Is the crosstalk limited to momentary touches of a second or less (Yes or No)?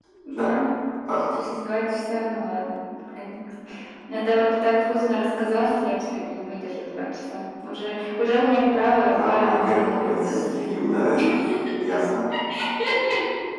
No